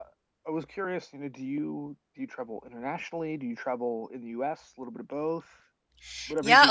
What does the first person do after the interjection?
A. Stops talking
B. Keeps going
A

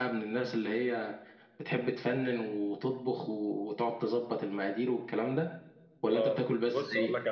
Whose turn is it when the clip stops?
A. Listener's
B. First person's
A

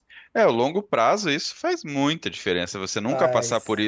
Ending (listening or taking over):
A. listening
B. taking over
A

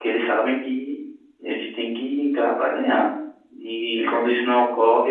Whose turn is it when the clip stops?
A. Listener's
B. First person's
B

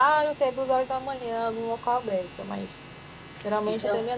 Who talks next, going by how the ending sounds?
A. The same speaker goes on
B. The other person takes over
A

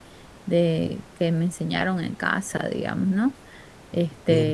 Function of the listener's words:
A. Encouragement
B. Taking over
B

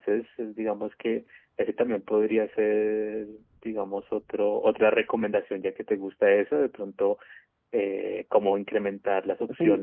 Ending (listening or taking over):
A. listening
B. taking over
B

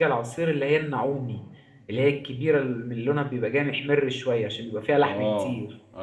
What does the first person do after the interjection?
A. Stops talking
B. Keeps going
A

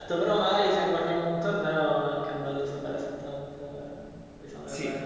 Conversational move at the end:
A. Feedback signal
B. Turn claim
B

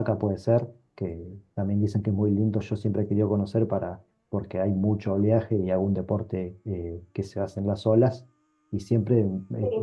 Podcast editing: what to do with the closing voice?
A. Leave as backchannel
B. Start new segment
A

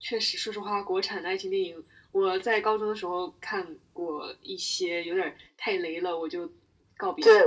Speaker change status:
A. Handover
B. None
A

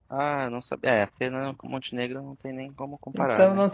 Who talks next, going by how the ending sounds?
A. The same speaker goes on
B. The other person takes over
B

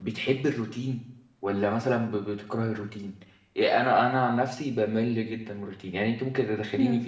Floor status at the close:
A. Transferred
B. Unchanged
B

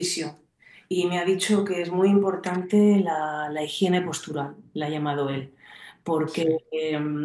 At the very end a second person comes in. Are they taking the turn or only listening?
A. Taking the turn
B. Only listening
B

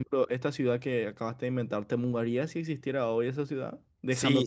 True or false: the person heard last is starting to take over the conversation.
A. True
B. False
A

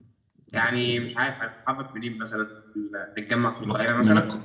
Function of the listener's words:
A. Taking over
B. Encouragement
A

